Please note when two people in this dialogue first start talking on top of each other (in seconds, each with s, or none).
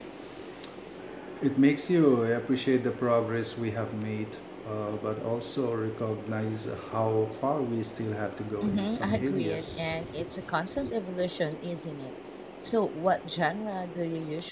8.5 s